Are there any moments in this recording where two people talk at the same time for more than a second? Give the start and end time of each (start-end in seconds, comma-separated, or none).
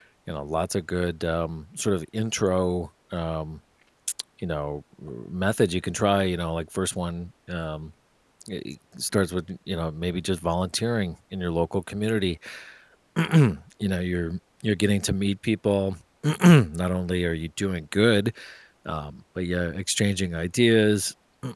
none